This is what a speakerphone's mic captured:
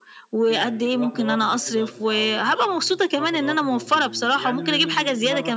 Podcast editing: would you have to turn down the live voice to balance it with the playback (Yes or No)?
No